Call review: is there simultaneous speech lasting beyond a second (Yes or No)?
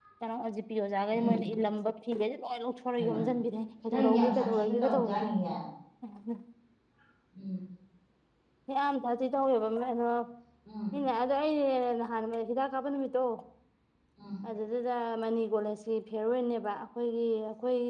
Yes